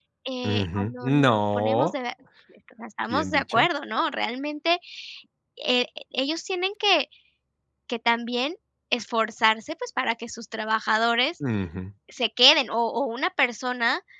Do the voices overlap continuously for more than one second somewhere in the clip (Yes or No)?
Yes